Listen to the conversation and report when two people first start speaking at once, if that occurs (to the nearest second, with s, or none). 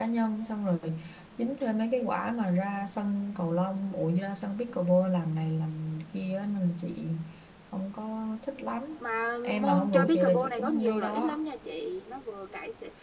9 s